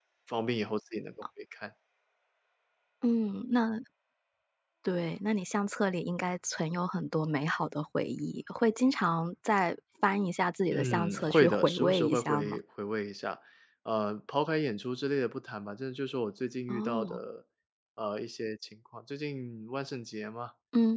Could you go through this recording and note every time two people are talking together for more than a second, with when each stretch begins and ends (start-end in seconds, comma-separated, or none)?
10.7-12.6